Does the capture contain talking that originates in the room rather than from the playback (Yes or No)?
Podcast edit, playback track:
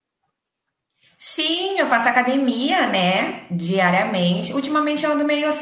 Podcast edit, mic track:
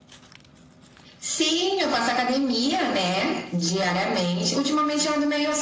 No